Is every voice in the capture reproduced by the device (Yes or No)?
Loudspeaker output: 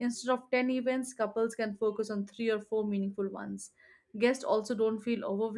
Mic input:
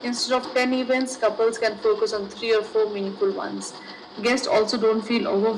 Yes